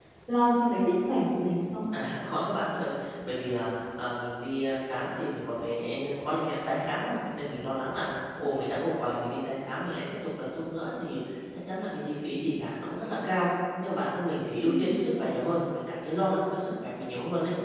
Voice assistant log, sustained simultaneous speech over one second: none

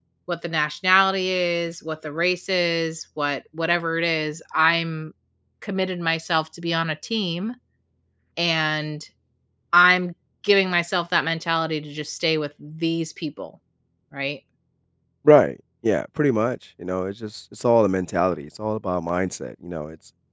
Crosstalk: none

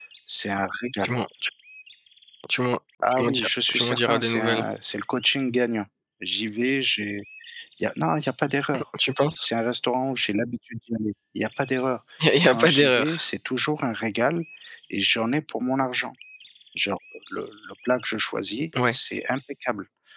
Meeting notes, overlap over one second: present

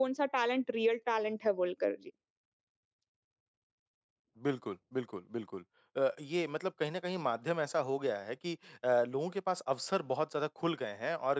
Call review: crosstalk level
none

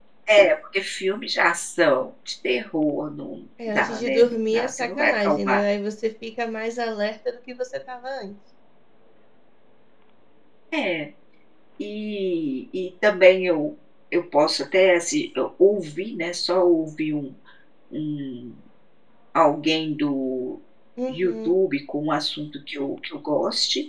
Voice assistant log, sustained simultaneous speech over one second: present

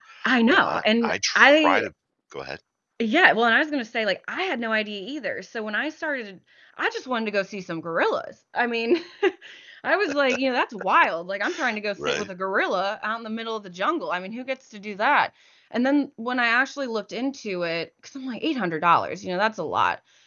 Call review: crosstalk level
present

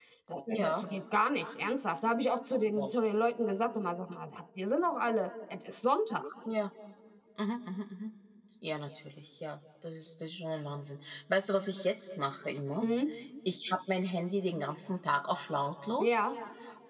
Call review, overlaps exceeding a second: none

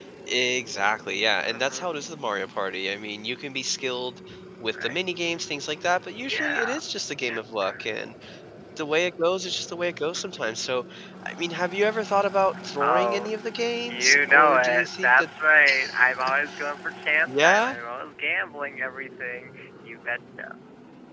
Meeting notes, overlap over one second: present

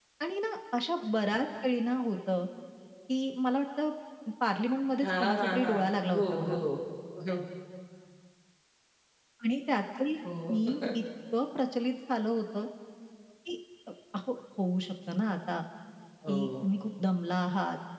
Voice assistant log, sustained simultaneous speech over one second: present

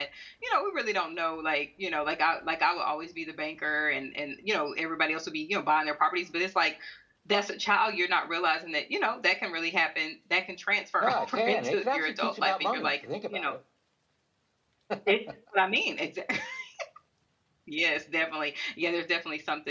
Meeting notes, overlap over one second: present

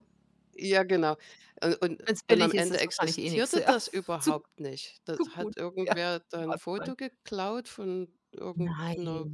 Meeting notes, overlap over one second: present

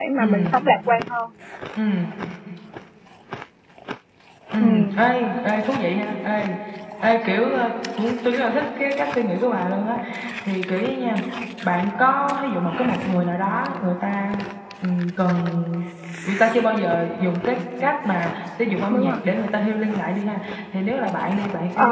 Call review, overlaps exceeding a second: none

